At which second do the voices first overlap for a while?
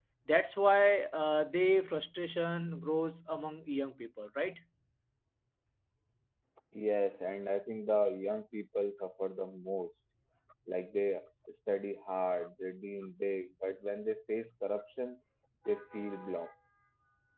none

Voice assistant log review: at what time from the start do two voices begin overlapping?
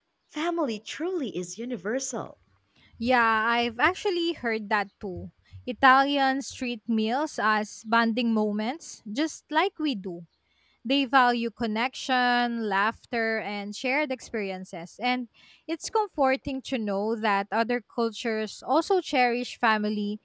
none

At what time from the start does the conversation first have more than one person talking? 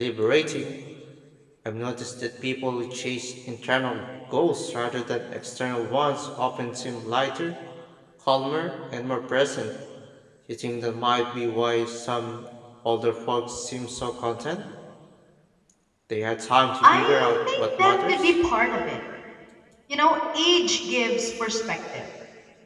16.8 s

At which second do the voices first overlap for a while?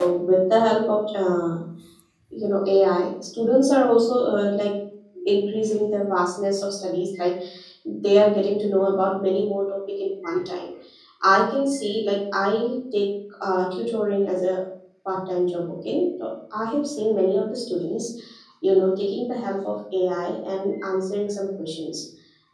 none

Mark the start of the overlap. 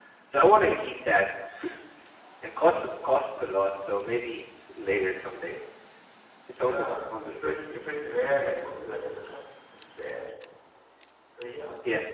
6.5 s

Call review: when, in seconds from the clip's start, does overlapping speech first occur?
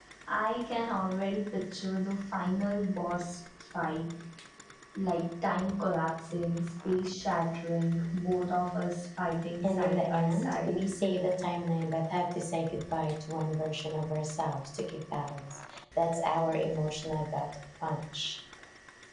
9.6 s

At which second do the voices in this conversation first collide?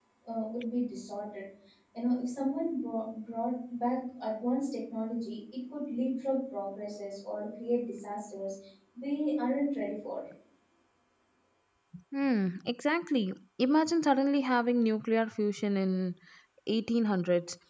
none

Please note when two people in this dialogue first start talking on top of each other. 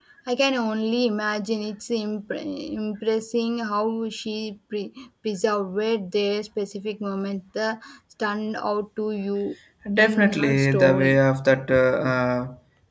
10.0 s

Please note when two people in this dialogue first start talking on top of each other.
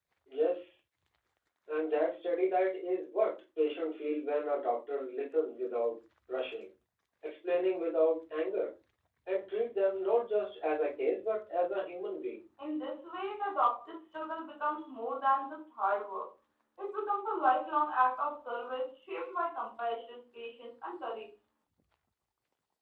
none

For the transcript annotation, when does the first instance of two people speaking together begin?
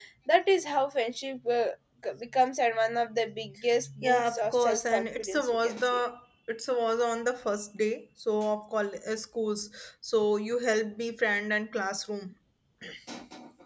4.0 s

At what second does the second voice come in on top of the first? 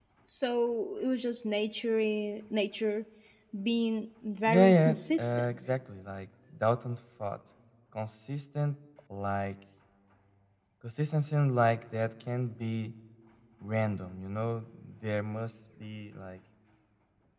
4.5 s

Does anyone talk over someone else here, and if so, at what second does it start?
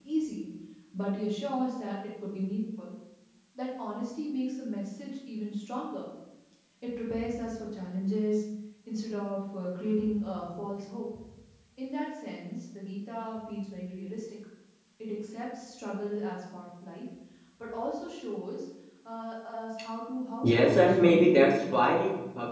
20.4 s

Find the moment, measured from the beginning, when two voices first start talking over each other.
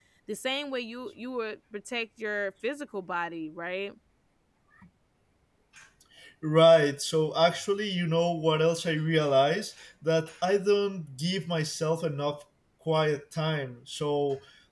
none

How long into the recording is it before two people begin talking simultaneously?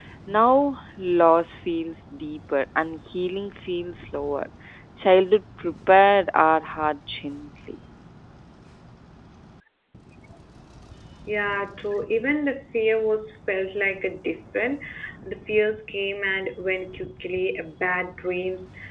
none

